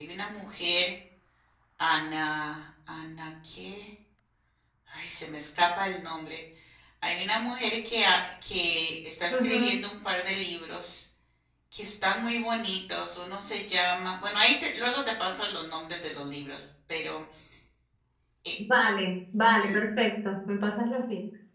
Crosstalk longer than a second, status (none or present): none